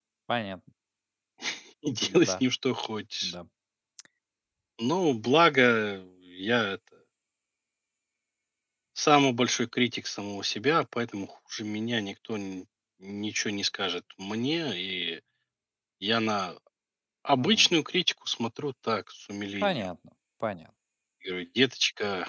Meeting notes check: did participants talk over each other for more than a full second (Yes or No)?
No